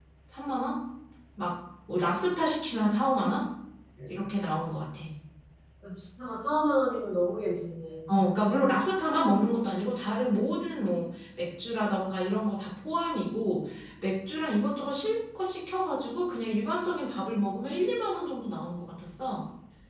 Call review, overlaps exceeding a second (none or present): none